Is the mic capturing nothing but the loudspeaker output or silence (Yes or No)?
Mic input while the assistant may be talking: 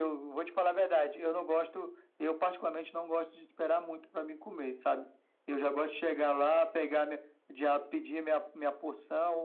Yes